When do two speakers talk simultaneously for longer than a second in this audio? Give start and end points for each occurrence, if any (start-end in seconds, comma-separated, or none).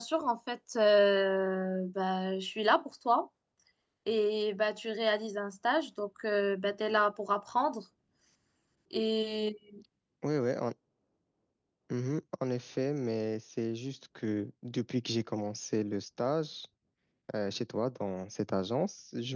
none